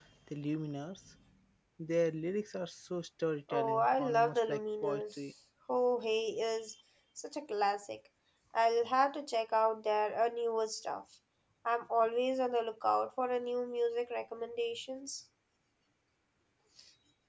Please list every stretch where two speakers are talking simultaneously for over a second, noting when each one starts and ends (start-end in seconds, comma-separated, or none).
3.5-5.2